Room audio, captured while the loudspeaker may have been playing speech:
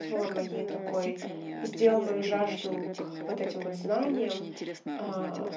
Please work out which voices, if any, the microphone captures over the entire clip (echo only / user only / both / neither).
both